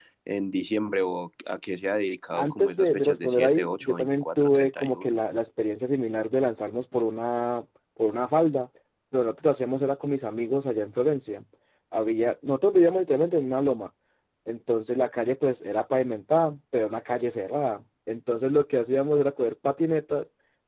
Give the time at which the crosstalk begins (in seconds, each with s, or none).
2.3 s